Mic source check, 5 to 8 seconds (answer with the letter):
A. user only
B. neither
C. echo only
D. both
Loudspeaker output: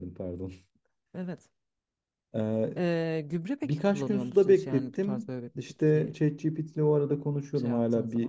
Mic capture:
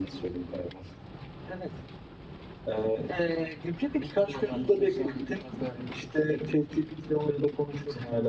C